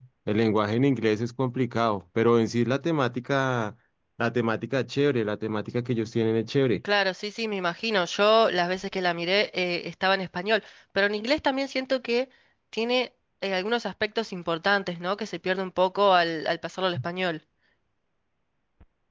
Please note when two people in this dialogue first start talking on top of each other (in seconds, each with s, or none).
none